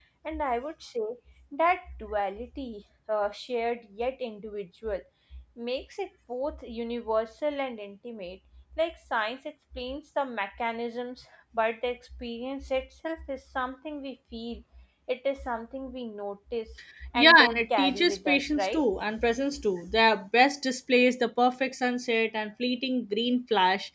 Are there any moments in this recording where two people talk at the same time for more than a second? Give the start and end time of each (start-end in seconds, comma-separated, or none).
17.1-18.8